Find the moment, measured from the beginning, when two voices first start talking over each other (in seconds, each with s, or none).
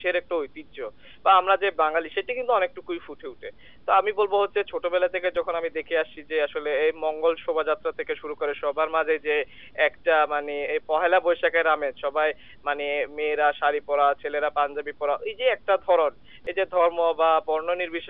none